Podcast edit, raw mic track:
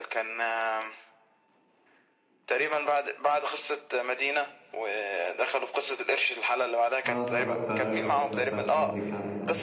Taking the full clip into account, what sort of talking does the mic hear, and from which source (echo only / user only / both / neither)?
both